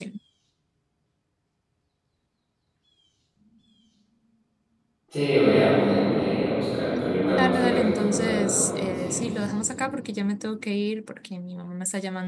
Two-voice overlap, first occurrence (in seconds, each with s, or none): 6.9 s